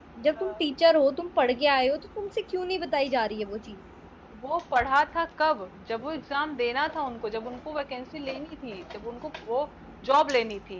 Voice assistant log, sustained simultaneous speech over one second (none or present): none